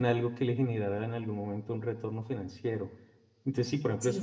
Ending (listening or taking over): listening